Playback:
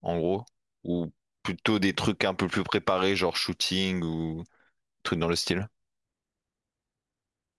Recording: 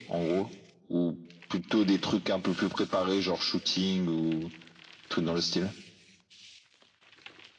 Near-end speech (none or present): none